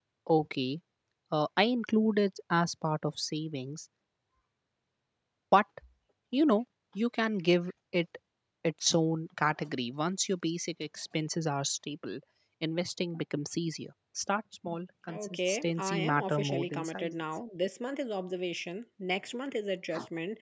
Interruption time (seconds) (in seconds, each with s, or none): 15.1 s